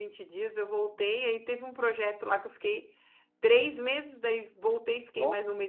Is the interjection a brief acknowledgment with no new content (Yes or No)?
Yes